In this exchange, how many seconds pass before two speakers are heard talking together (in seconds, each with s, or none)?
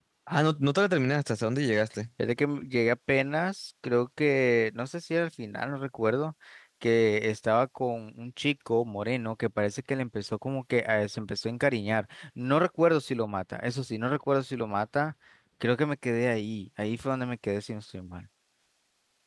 none